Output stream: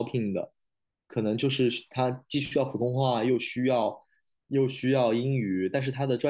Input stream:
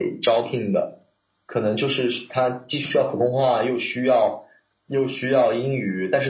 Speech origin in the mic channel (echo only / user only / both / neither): echo only